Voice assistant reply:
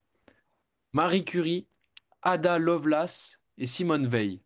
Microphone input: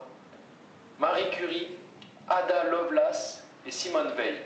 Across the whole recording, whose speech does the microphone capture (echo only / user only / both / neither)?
echo only